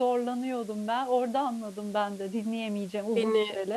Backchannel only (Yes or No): No